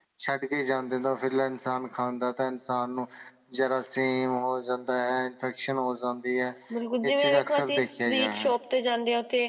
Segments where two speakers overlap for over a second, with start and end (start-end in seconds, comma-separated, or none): 7.0-8.5